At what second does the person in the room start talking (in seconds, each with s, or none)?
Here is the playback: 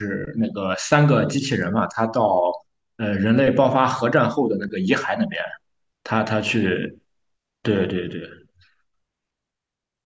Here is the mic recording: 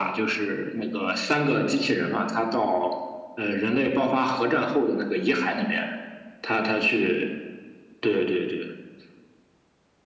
none